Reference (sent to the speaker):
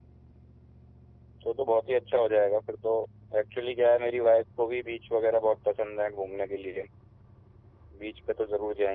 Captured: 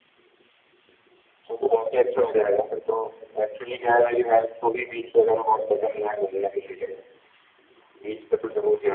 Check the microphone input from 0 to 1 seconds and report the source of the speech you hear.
neither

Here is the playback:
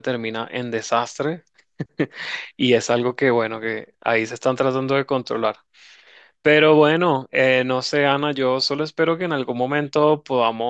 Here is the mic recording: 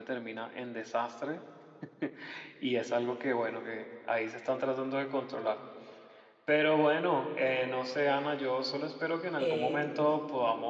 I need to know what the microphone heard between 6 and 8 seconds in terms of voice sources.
echo only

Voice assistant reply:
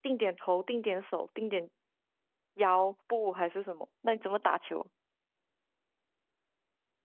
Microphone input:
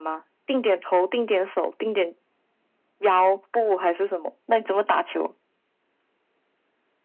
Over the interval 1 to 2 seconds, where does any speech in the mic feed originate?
echo only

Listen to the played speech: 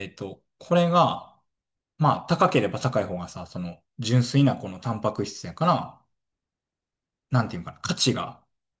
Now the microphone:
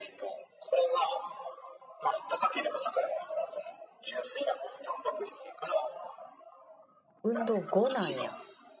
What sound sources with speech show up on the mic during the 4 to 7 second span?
echo only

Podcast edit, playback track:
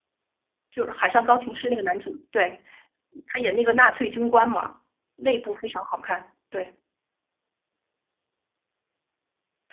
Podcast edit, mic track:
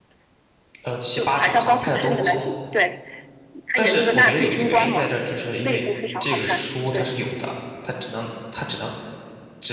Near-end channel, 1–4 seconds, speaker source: both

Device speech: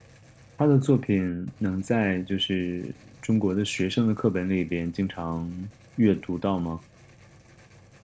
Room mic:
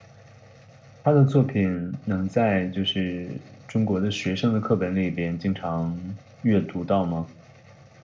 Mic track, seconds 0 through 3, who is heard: echo only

